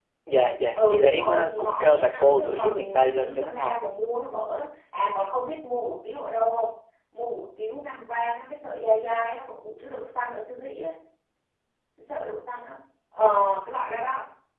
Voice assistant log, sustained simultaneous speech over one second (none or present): present